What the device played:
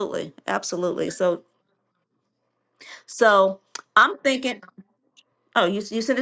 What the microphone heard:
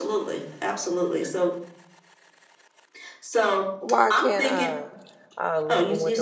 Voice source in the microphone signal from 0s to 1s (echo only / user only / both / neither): echo only